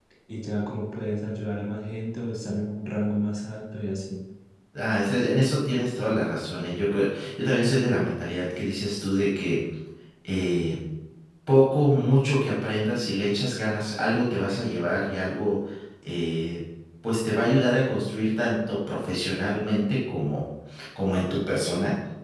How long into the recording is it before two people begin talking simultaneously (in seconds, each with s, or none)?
none